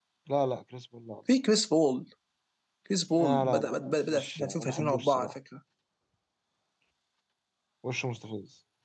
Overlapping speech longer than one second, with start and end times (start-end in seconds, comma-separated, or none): 4.1-5.3